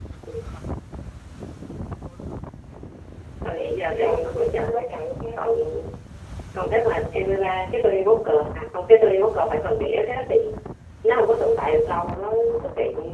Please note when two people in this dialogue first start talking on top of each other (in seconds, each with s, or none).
3.6 s